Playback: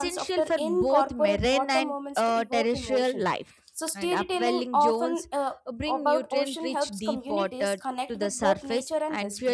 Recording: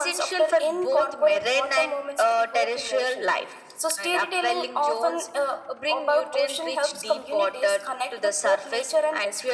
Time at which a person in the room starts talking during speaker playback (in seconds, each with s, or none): none